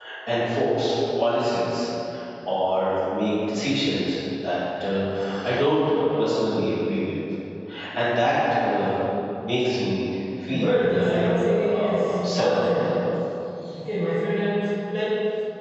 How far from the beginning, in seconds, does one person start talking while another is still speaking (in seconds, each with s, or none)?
10.5 s